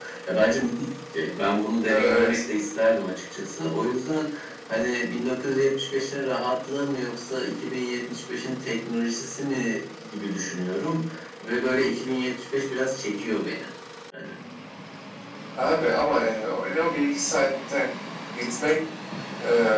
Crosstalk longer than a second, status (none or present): none